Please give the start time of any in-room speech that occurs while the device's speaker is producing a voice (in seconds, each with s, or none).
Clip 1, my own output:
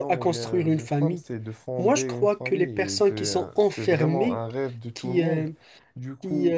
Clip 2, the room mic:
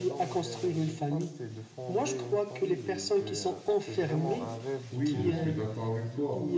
4.9 s